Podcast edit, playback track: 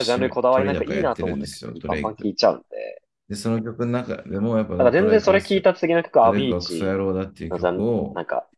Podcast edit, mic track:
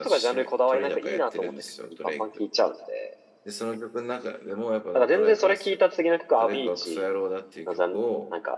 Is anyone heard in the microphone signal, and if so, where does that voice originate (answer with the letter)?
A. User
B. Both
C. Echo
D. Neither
C